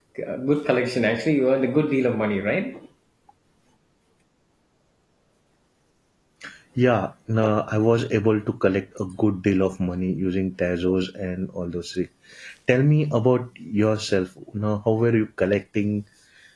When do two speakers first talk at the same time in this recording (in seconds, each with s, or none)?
none